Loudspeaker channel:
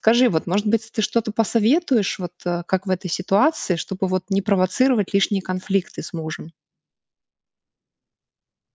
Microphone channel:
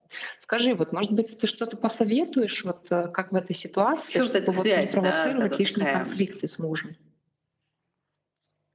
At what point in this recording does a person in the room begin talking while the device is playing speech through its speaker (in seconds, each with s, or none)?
4.1 s